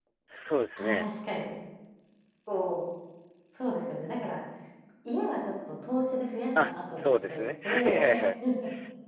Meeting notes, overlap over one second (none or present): present